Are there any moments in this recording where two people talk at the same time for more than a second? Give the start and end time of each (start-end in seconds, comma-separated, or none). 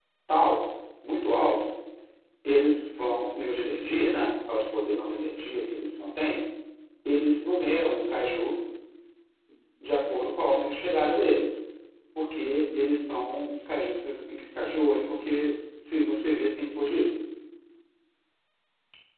none